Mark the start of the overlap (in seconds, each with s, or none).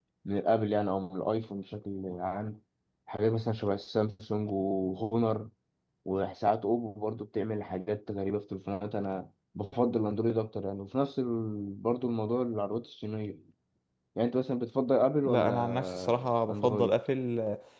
15.2 s